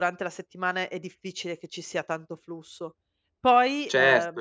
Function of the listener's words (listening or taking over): taking over